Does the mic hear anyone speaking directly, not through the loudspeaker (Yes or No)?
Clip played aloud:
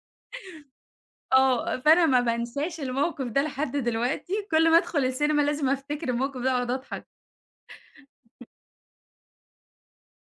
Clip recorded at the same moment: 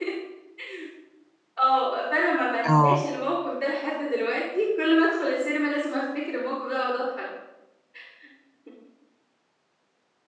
Yes